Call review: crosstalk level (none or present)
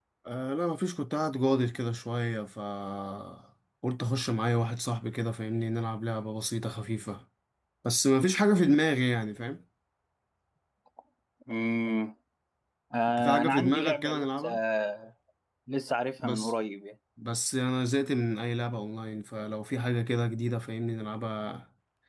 present